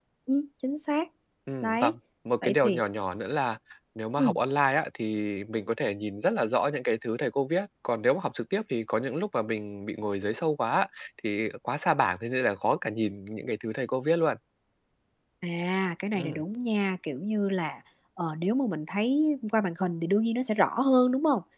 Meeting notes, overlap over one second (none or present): none